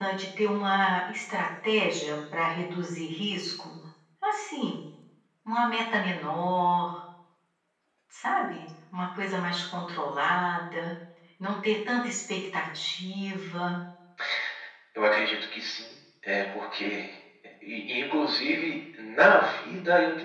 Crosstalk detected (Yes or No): No